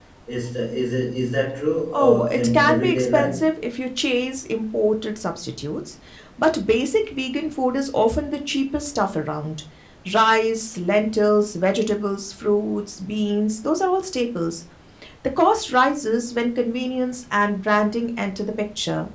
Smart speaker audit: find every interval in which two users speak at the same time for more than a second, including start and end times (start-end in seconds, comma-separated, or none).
1.9-3.4